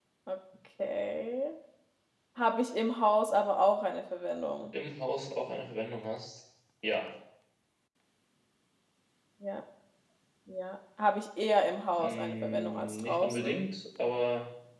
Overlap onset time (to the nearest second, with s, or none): 12 s